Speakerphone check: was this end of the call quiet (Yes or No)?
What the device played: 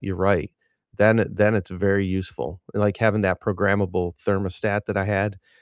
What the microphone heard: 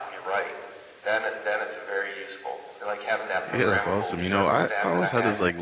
No